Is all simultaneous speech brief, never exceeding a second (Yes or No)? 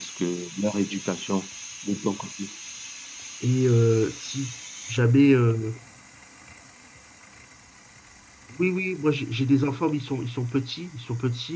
Yes